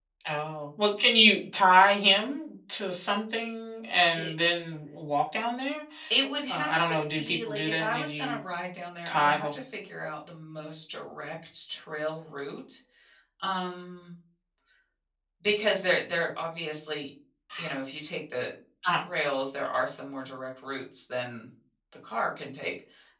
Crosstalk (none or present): present